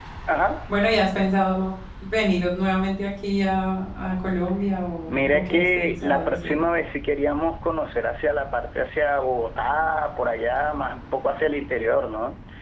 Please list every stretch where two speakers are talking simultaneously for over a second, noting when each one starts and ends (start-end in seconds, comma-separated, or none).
5.1-6.6